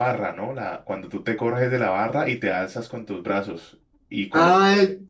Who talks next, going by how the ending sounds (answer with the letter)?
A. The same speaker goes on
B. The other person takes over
B